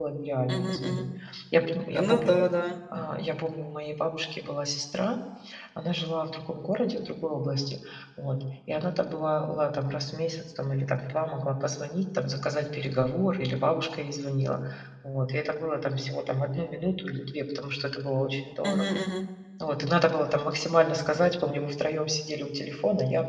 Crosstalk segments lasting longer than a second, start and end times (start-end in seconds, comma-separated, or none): none